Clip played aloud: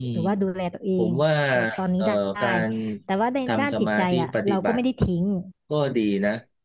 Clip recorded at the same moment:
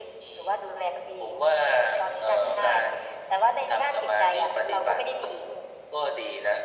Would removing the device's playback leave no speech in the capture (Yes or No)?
Yes